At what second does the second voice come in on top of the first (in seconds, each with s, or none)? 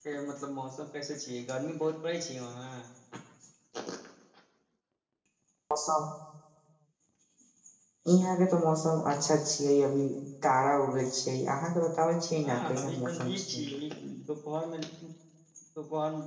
12.4 s